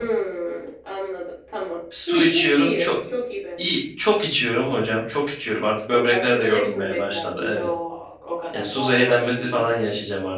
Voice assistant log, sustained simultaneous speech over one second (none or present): present